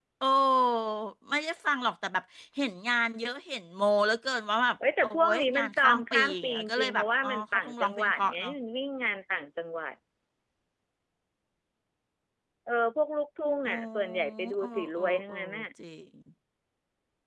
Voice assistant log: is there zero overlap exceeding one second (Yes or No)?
No